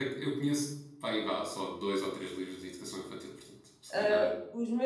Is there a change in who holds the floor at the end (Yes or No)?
Yes